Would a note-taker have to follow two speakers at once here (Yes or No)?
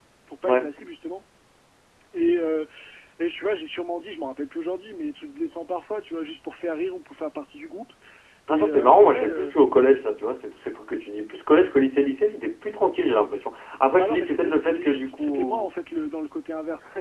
Yes